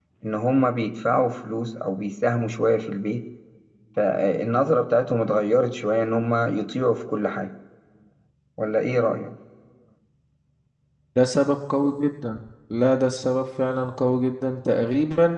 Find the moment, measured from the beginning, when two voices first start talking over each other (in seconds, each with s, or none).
none